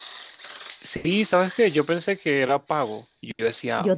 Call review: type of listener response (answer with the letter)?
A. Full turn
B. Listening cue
B